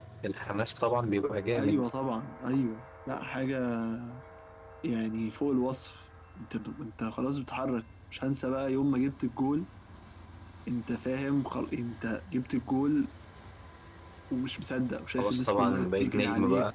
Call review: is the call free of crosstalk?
No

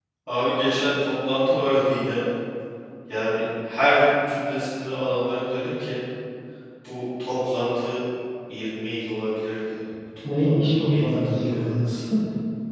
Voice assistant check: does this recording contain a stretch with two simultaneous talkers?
Yes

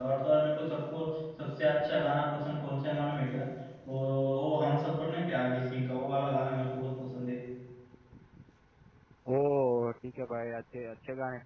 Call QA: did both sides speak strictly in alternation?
Yes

